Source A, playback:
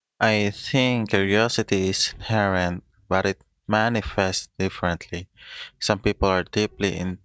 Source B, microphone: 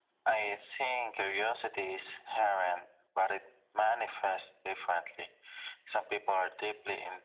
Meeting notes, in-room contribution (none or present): none